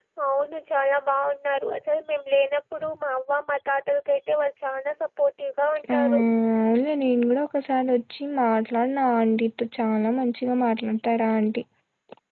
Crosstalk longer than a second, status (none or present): none